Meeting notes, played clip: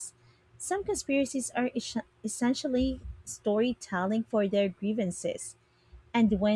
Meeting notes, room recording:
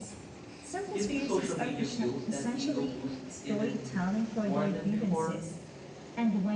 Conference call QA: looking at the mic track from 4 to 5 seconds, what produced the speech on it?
both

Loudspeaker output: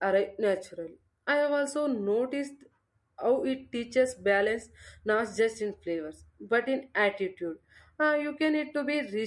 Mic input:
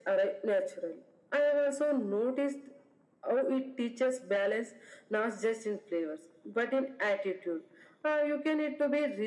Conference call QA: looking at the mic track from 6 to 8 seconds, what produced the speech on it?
echo only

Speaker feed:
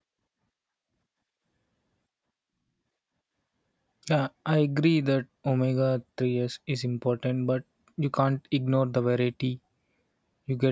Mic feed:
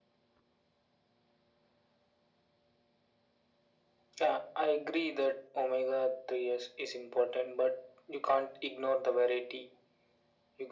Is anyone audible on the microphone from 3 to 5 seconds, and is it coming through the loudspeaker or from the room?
echo only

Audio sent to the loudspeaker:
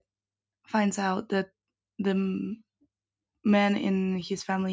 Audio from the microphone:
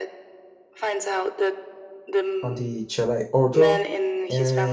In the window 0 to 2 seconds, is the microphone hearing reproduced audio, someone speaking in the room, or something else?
echo only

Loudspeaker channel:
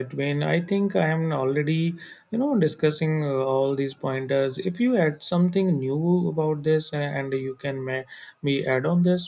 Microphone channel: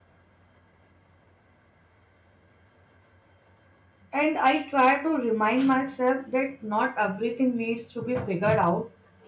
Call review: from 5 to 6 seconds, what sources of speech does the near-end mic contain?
user only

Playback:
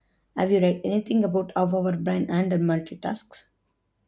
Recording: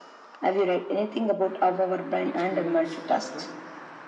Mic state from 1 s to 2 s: echo only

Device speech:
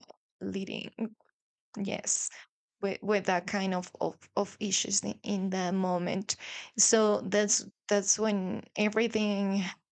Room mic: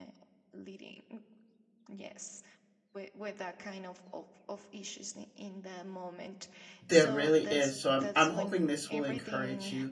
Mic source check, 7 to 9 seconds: both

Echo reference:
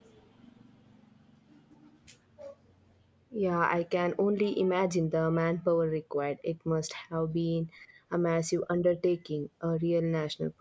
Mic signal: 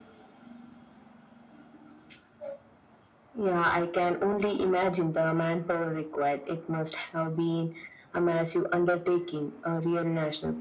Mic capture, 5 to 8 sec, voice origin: echo only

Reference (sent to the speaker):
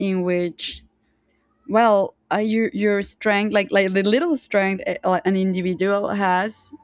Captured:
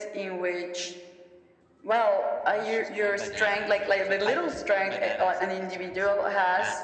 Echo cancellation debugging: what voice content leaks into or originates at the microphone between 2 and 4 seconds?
both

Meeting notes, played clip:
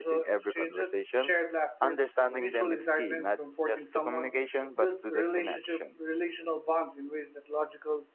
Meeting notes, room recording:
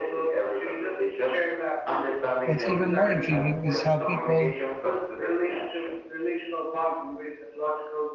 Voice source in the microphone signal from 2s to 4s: both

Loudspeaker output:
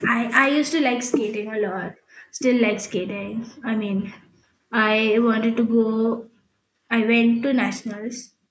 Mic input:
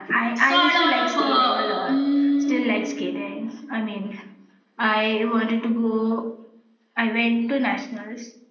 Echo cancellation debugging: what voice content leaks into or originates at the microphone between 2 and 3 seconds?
both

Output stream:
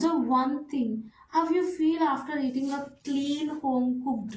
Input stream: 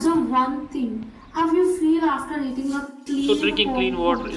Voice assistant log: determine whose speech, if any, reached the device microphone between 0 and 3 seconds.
echo only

